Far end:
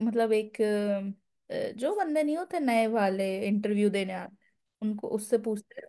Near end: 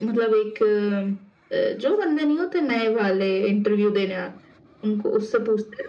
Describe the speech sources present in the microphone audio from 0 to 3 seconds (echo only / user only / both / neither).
echo only